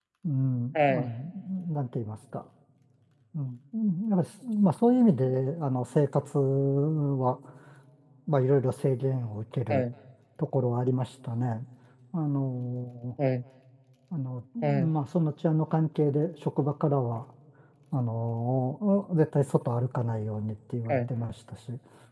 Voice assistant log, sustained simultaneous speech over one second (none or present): none